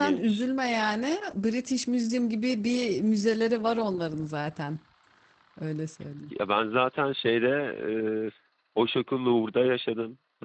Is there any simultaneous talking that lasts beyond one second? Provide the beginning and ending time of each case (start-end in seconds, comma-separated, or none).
none